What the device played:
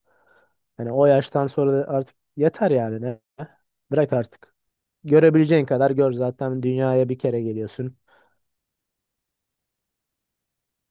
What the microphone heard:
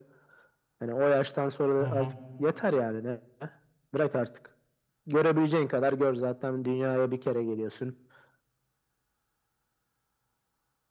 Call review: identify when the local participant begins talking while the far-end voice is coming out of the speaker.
2 s

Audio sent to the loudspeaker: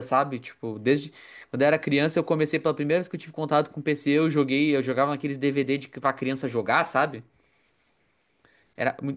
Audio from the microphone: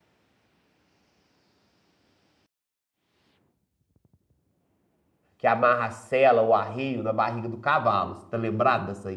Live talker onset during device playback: 5 s

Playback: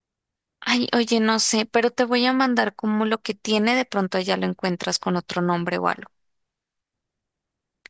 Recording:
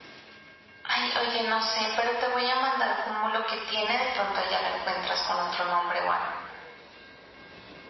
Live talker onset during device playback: none

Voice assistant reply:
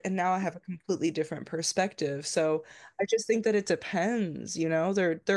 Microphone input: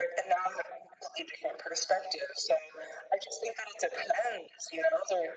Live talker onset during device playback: none

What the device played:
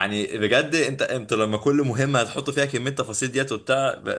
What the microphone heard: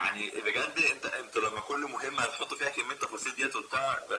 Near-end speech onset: none

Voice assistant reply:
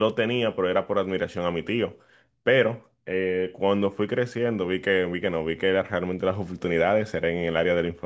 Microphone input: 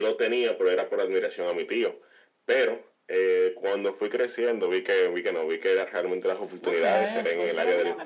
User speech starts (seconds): 7 s

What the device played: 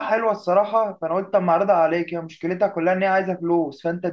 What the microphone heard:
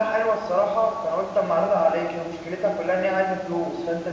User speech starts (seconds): none

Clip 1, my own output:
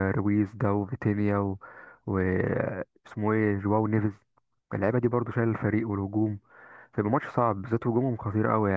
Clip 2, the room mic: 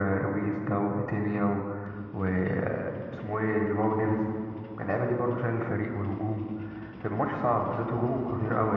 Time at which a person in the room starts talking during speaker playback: none

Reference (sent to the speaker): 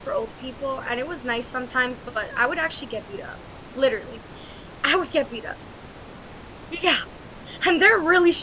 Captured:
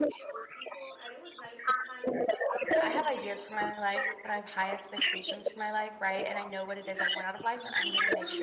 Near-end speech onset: 3 s

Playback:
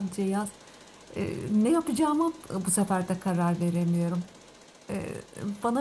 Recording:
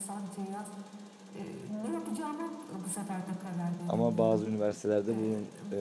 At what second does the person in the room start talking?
4 s

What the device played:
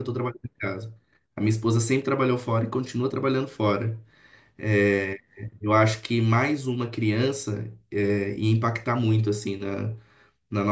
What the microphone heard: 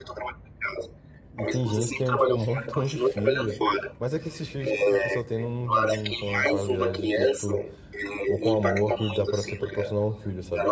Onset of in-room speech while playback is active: 1 s

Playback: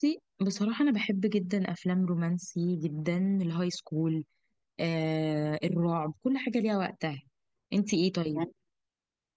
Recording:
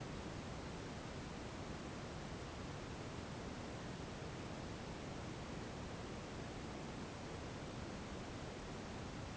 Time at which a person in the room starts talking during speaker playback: none

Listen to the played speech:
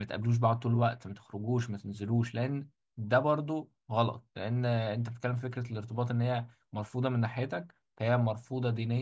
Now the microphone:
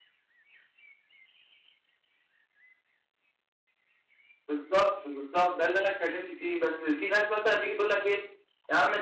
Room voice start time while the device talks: 4 s

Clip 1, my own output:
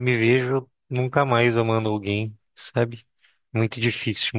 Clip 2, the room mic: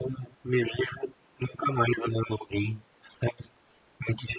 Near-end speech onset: none

